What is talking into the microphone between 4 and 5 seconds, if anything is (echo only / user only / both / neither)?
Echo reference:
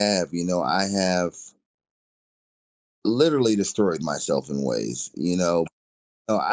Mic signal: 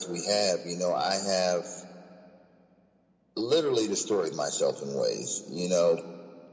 echo only